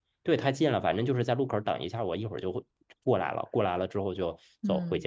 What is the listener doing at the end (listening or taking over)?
taking over